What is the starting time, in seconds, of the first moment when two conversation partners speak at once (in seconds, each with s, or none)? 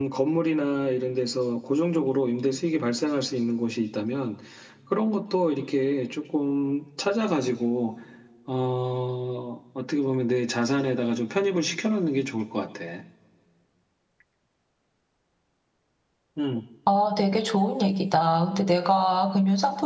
none